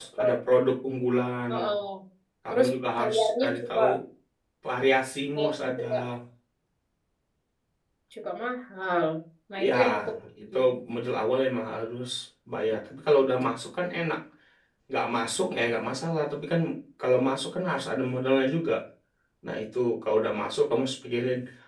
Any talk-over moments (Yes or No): Yes